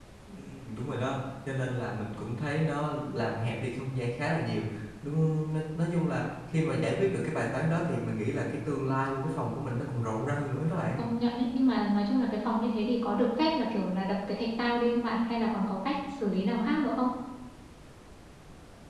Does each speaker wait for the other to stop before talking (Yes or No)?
Yes